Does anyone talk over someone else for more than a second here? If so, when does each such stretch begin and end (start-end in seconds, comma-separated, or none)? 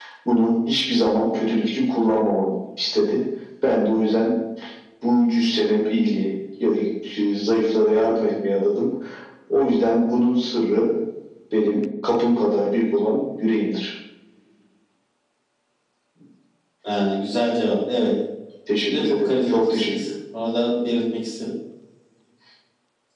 18.9-20.1